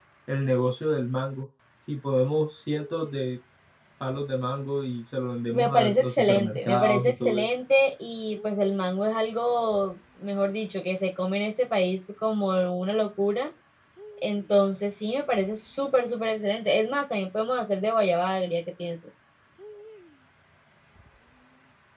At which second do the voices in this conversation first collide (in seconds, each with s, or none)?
5.5 s